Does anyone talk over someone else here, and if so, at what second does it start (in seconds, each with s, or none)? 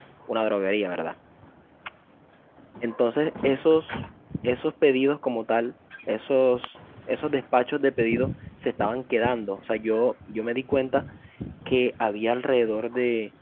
none